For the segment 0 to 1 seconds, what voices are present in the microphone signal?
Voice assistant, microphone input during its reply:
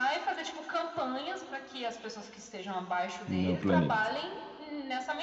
echo only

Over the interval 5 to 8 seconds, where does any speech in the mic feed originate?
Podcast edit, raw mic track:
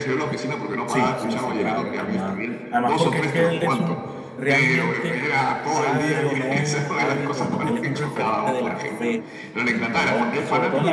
both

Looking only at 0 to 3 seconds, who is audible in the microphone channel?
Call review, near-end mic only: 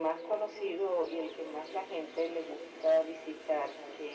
echo only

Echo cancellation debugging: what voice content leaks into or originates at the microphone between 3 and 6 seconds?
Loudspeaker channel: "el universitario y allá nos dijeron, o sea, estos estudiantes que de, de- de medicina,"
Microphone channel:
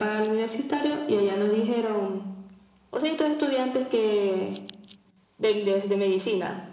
echo only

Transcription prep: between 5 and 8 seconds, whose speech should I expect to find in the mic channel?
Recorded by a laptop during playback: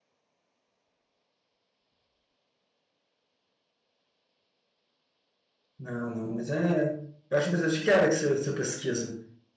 user only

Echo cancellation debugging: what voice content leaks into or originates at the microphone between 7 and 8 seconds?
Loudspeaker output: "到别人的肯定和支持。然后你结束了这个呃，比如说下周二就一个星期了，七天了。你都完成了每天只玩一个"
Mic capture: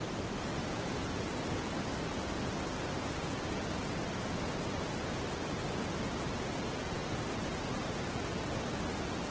neither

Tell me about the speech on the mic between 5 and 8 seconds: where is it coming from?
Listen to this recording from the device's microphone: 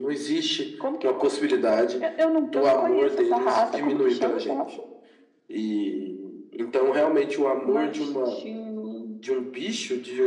echo only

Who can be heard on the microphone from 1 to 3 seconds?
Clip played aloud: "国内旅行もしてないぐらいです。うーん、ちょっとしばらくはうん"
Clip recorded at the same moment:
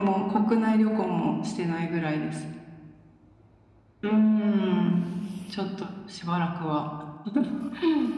echo only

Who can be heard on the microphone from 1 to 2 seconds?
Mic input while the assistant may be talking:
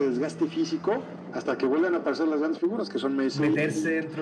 echo only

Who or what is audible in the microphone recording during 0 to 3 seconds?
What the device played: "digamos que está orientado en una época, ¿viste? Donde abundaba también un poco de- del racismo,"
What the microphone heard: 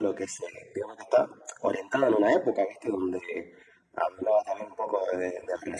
echo only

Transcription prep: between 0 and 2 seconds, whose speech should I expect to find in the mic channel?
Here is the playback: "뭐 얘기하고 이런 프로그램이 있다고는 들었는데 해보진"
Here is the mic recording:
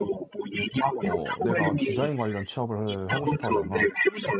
both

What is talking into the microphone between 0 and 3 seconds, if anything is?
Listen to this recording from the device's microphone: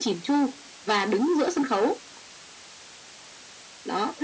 echo only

